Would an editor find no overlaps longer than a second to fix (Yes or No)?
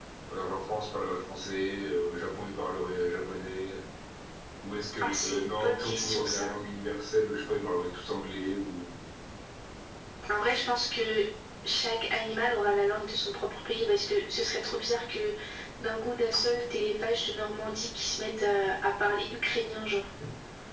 No